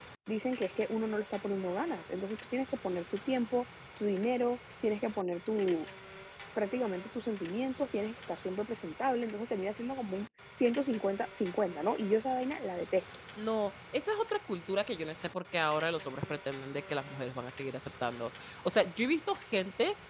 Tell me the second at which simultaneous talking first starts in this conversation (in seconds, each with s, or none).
none